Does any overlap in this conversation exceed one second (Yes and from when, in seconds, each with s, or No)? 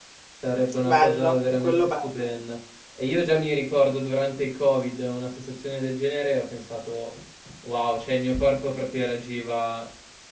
Yes, from 0.8 s